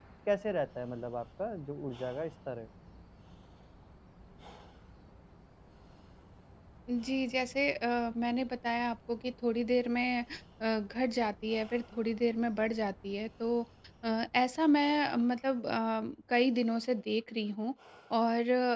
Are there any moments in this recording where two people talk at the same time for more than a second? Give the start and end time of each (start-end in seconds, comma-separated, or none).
none